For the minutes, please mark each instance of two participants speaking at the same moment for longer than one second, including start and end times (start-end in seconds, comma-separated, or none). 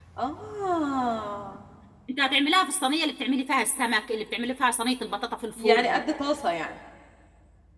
none